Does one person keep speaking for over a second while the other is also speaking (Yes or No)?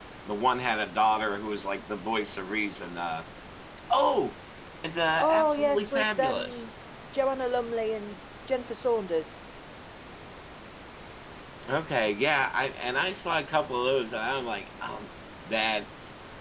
Yes